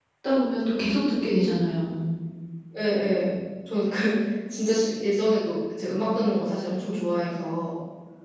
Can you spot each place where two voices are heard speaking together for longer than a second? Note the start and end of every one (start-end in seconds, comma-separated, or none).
none